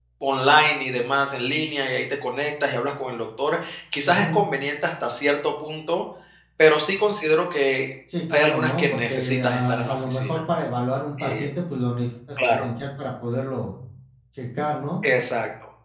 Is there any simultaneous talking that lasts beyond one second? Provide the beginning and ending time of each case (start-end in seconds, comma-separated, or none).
8.3-10.4